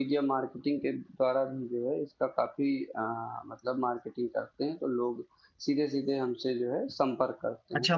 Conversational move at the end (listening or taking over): taking over